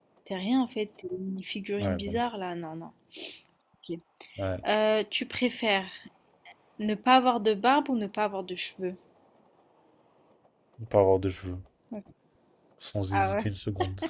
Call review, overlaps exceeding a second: none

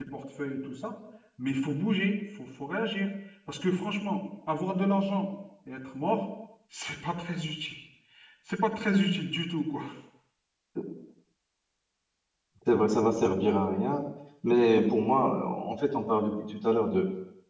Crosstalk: none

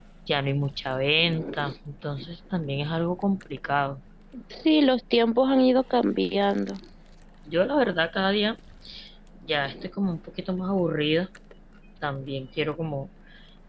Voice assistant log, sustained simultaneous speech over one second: none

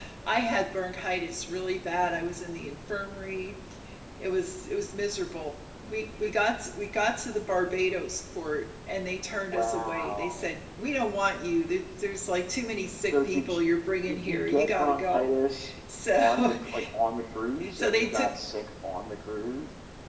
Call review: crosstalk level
present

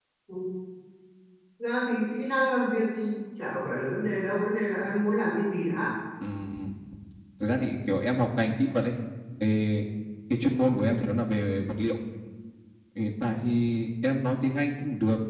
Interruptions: none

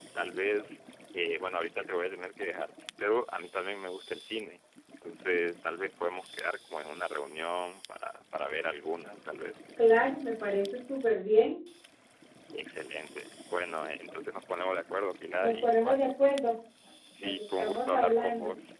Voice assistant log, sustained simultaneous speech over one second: present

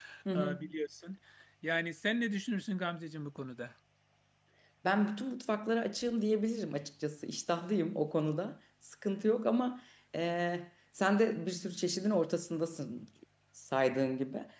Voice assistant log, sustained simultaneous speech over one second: none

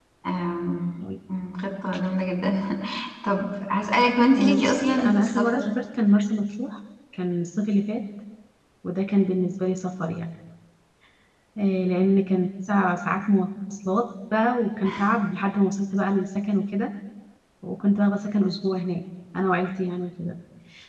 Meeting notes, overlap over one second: present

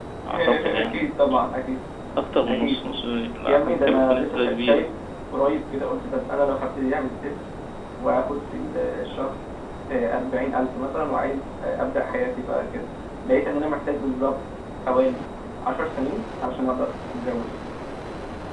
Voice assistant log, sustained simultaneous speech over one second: present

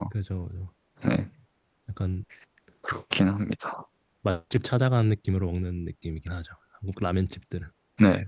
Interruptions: none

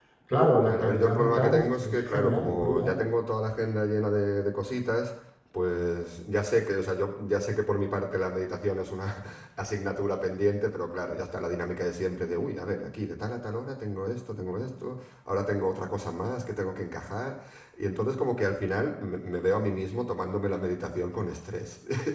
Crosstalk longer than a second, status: present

